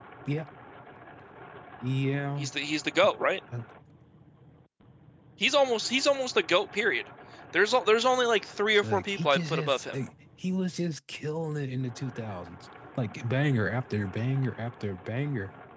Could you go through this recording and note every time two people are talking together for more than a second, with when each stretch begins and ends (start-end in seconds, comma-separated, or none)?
8.7-9.9